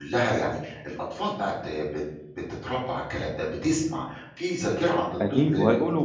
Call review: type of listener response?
taking over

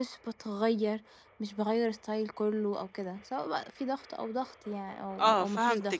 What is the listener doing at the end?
taking over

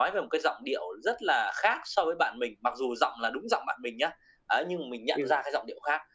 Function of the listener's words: listening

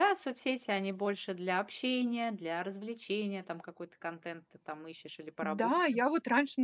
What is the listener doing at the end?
taking over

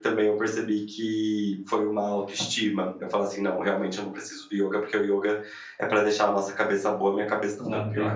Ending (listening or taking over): taking over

